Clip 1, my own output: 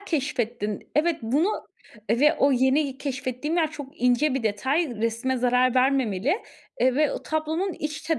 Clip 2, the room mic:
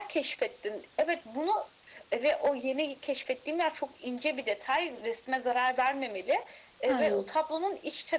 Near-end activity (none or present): present